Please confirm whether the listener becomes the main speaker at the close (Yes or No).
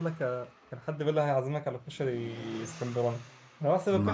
No